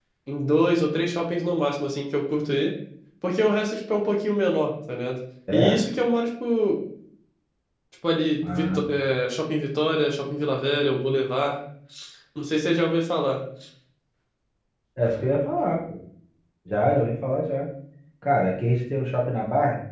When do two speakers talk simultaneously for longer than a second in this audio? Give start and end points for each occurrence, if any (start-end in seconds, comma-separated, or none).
none